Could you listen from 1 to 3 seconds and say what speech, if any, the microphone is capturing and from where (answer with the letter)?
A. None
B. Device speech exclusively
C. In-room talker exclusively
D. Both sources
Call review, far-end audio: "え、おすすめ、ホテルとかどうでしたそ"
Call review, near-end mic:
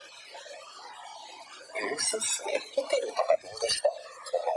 B